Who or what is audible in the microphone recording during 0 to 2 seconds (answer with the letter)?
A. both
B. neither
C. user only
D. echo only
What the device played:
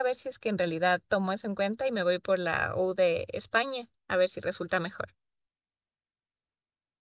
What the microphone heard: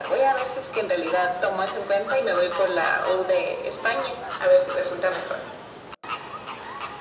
D